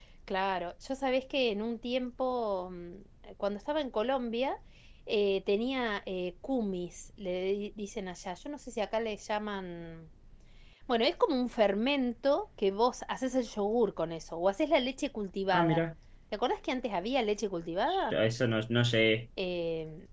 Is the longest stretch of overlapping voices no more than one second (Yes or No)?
Yes